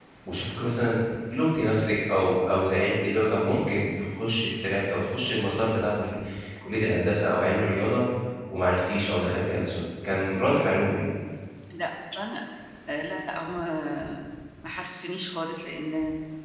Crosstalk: none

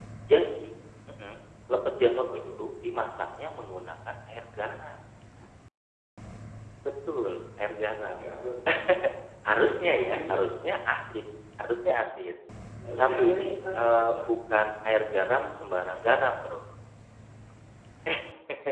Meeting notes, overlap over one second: present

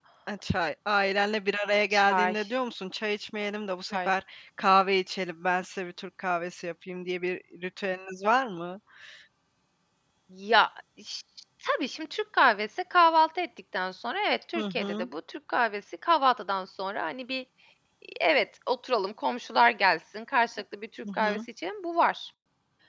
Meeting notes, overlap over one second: none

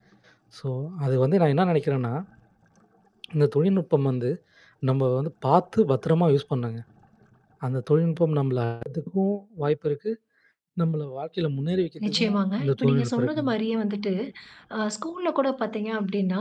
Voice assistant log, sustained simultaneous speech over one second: present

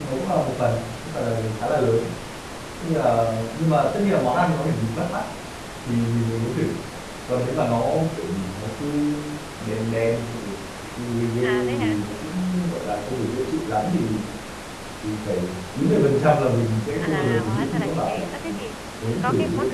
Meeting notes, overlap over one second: present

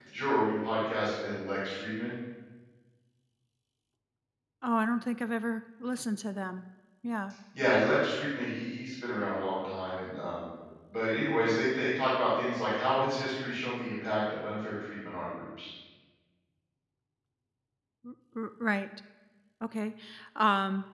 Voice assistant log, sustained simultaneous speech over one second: none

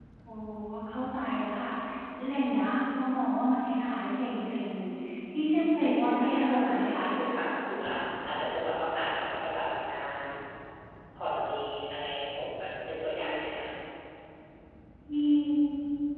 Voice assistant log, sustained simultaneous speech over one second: present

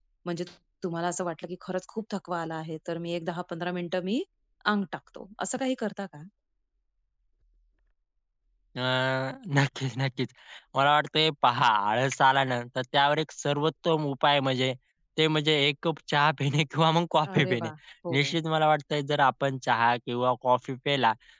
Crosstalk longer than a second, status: none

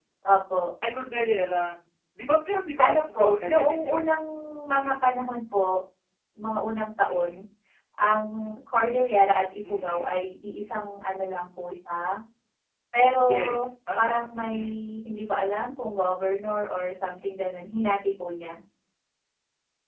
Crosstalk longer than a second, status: present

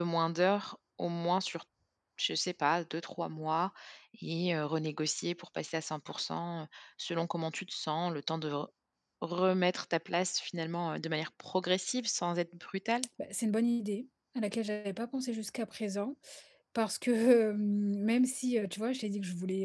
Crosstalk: none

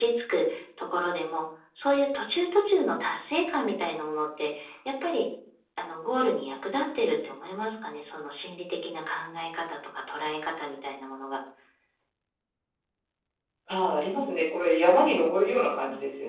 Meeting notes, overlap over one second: none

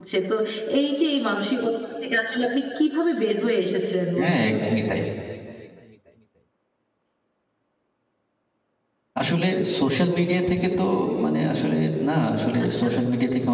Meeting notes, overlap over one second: none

